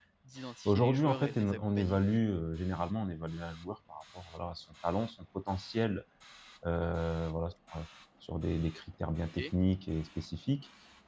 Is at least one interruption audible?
Yes, from 0.7 s

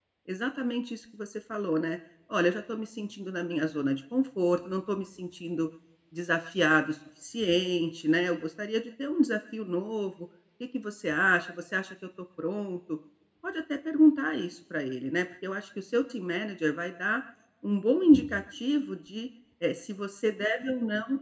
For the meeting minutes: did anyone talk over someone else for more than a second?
No

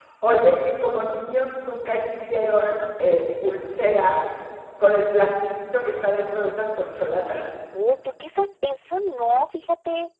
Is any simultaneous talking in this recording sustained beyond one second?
No

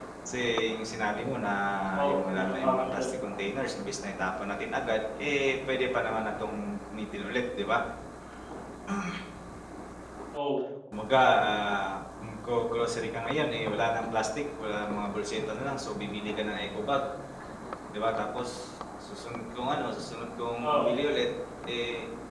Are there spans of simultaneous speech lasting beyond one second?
Yes, from 1.9 s

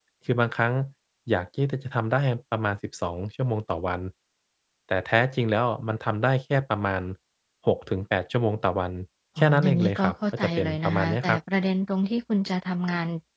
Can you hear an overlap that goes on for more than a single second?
Yes, from 9.4 s

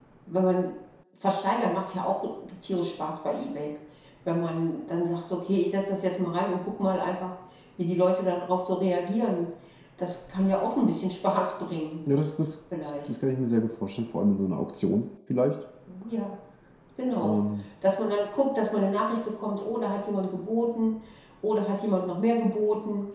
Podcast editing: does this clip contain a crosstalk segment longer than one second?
No

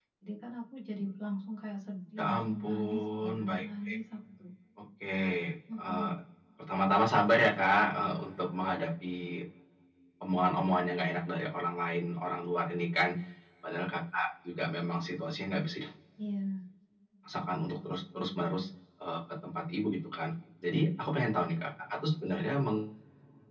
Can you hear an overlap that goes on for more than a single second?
Yes, from 2.2 s

